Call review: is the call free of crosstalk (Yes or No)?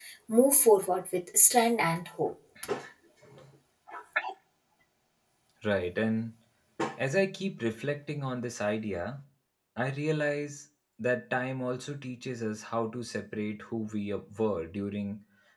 Yes